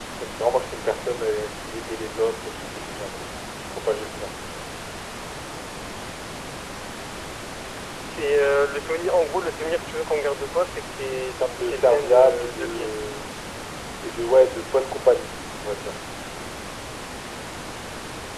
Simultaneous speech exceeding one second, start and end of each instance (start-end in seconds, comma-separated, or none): 11.6-12.9